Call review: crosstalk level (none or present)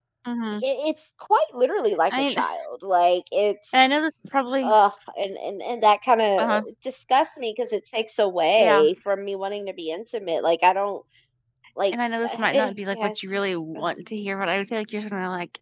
present